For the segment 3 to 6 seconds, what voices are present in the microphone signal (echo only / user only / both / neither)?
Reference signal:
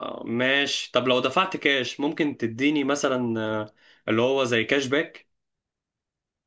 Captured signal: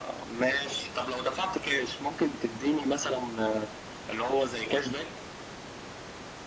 echo only